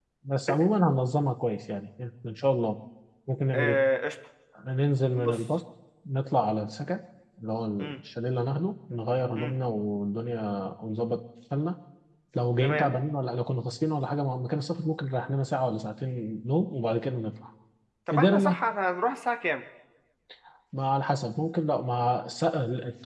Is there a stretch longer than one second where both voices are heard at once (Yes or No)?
No